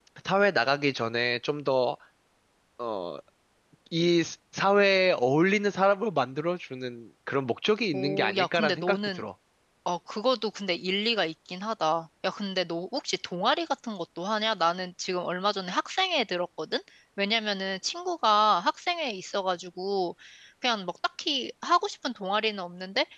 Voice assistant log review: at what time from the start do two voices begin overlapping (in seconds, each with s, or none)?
7.9 s